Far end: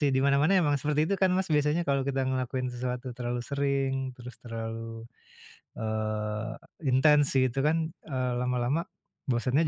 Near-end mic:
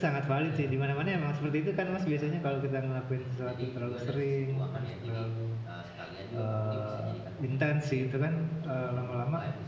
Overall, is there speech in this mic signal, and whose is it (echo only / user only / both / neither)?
both